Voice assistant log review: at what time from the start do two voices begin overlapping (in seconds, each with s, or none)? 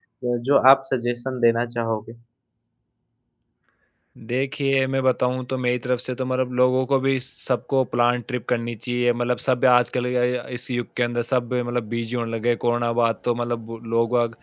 none